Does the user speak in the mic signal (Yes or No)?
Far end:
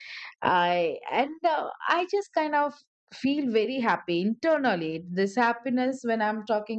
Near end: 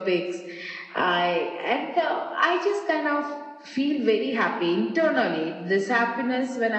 No